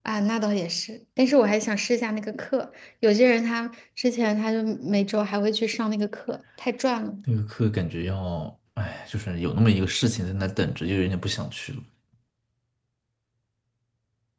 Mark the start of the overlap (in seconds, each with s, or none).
none